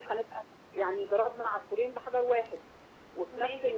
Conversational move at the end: taking over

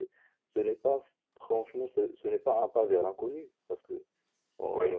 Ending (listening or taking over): listening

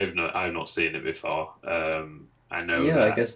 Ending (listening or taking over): taking over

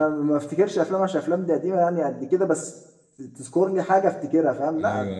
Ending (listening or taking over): taking over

